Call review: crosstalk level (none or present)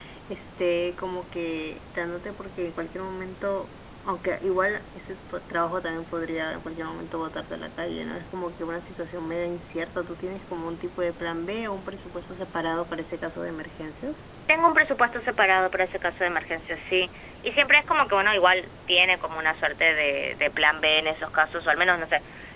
none